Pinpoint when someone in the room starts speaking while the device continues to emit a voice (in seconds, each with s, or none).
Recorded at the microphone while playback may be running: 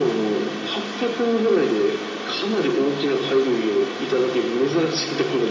none